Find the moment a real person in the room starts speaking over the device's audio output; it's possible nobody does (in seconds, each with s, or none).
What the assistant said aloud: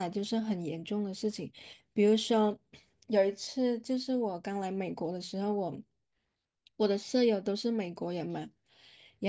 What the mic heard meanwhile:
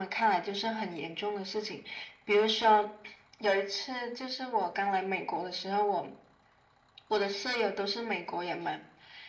none